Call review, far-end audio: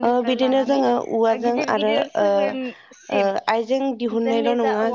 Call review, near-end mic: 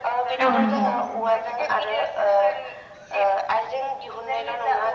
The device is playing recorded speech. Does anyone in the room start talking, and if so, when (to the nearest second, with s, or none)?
0 s